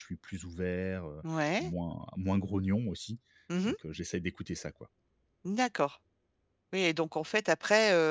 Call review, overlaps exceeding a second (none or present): none